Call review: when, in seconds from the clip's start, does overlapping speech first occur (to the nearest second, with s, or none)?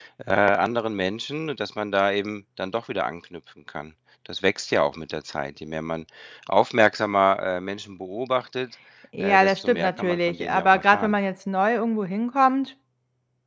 9 s